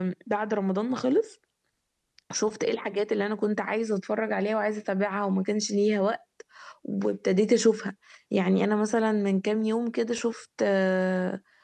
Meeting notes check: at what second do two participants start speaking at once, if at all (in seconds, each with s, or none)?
none